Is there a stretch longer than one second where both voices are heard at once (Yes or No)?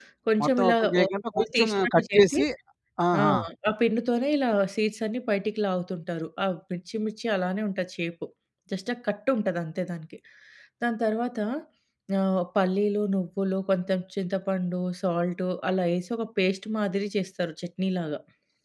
Yes